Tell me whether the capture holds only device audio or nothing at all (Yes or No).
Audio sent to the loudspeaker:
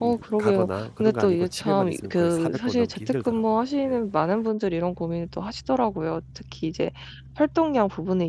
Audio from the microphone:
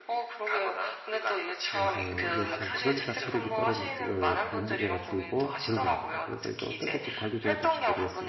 No